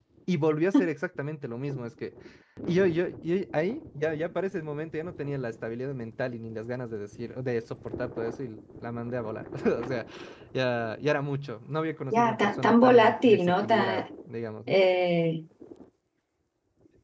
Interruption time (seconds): 12.1 s

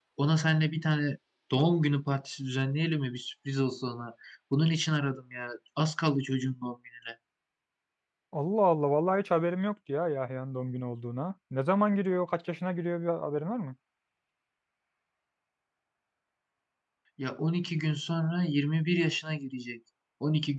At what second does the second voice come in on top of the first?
none

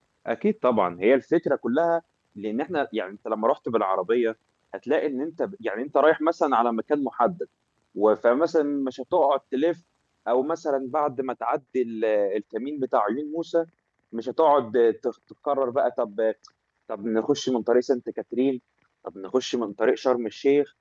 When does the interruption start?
none

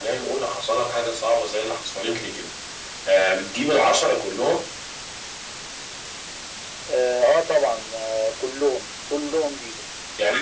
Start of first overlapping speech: none

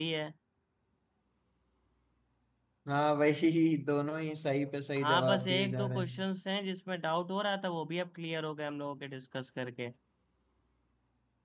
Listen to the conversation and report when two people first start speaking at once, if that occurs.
5.0 s

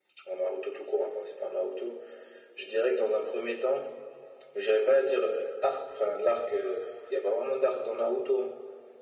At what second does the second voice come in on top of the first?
none

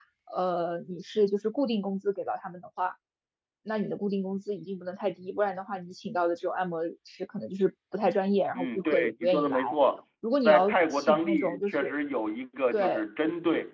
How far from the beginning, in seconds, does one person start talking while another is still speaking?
8.5 s

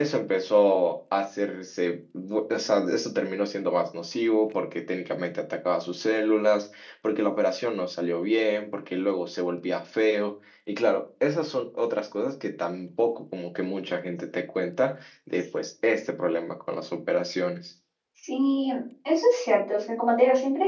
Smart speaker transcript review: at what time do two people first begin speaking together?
none

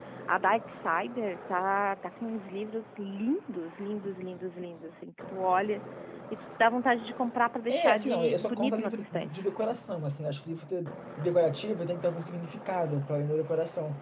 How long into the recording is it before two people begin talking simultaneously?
7.7 s

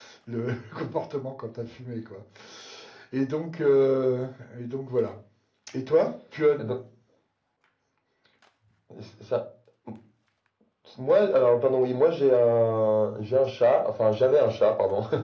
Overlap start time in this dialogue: none

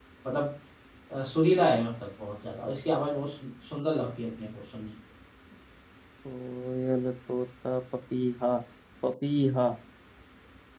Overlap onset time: none

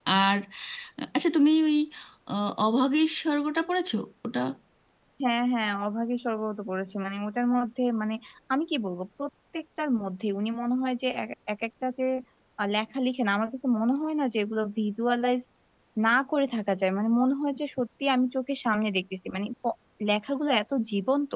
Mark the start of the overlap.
none

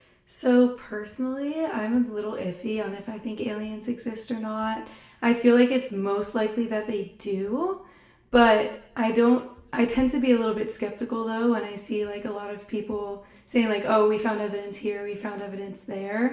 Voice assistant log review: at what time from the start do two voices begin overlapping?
none

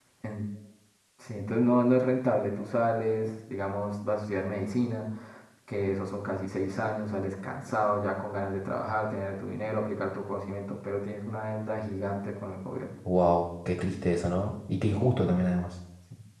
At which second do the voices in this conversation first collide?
none

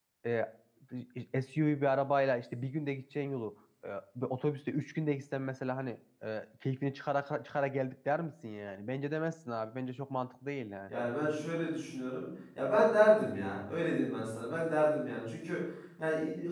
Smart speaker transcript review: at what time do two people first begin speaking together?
none

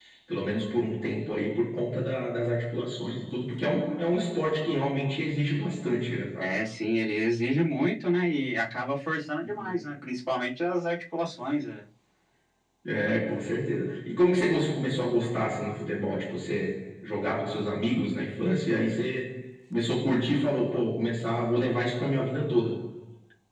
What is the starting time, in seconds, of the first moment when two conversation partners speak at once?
none

